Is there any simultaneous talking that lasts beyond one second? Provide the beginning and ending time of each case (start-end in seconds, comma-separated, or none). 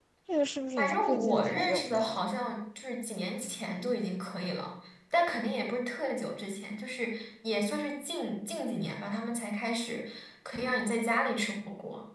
0.8-2.2